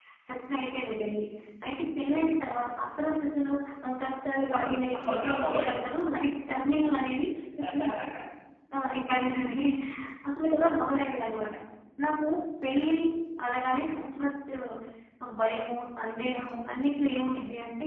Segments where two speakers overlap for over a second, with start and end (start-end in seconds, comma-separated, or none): 4.5-5.8